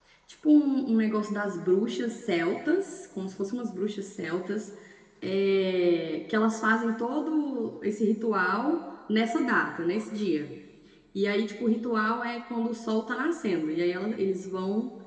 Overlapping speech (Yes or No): No